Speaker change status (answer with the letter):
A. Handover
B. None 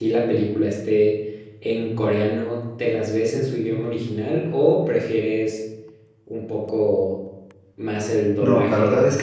A